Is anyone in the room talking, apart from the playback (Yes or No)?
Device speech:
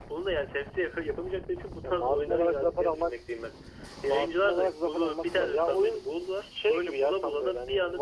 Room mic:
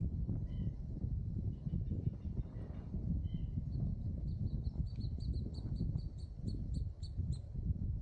No